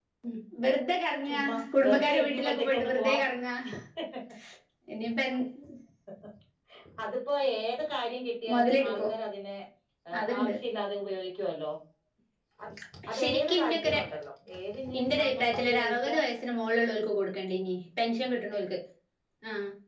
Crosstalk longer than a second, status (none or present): present